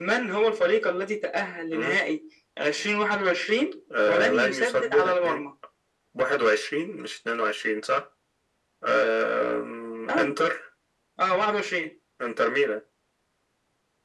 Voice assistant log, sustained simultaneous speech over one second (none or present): present